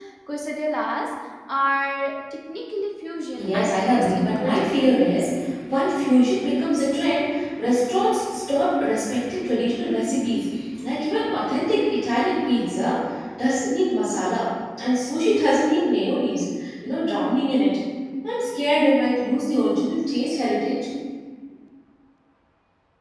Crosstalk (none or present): present